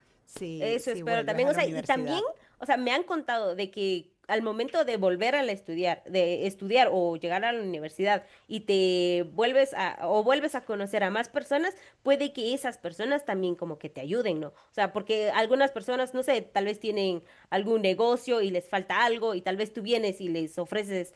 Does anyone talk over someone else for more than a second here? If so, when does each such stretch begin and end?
0.6-2.2

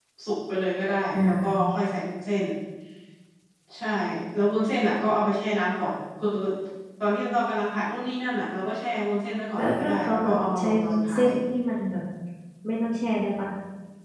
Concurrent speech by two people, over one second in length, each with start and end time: 9.6-11.3

